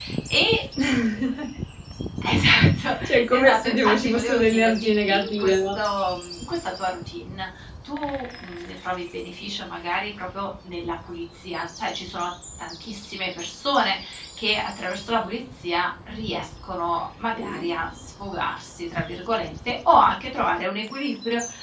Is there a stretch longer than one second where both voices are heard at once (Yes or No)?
Yes